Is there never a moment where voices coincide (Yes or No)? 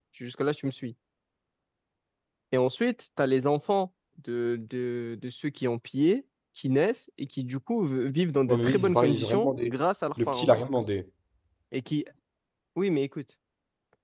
No